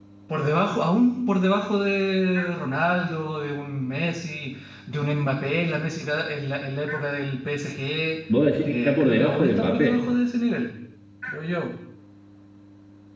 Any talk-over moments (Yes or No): Yes